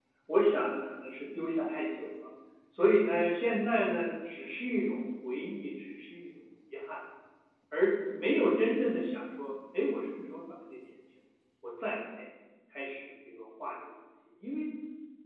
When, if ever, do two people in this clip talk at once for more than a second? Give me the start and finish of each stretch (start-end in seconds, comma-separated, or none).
none